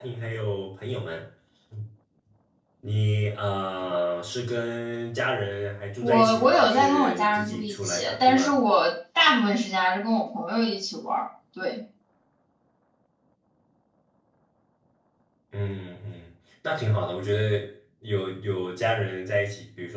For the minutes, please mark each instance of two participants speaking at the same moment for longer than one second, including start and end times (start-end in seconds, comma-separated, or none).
6.0-8.6